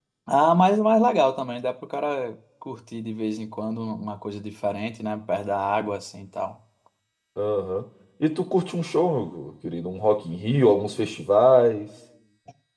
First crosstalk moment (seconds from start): none

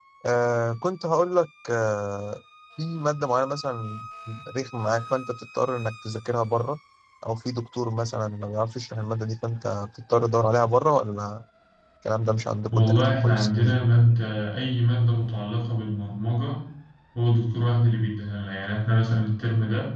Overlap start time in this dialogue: 12.7 s

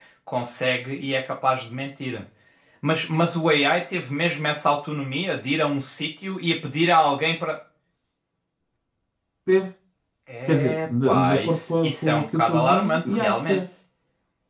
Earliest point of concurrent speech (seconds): 10.5 s

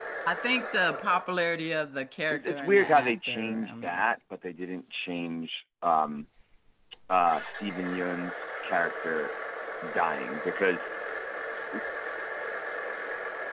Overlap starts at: 2.3 s

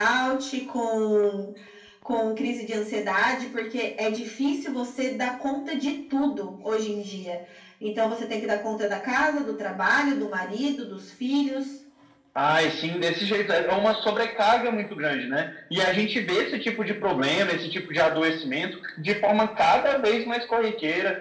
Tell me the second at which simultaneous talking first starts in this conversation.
none

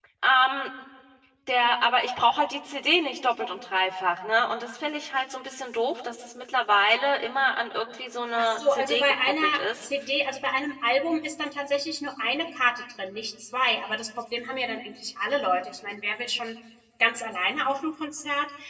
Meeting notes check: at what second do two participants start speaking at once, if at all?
8.4 s

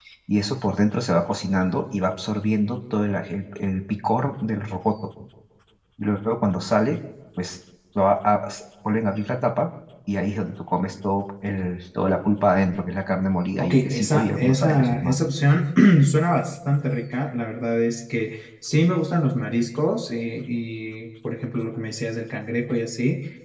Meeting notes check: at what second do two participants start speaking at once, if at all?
13.6 s

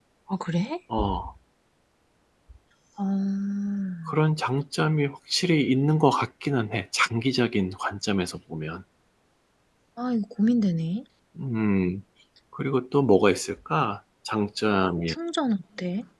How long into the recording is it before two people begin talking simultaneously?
none

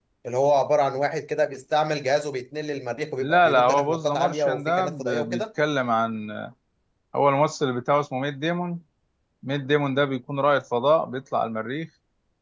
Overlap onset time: 3.2 s

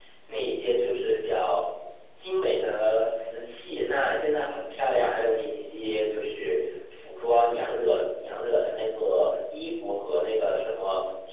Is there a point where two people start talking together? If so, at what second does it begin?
none

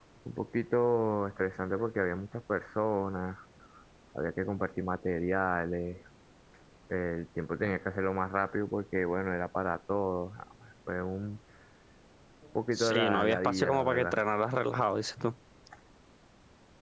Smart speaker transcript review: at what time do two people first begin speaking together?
12.7 s

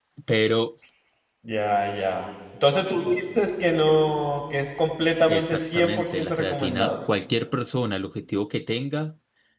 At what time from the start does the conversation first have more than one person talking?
5.3 s

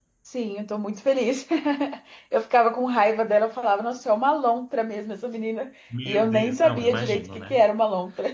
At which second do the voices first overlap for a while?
5.9 s

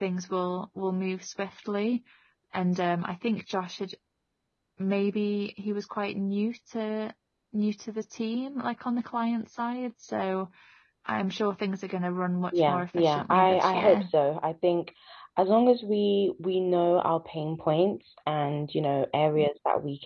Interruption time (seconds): 12.5 s

